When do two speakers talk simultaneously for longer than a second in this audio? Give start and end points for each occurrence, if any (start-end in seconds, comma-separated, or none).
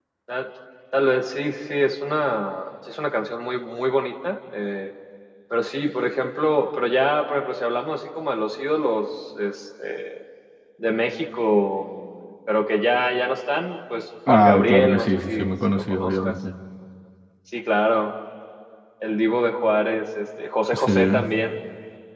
14.3-16.3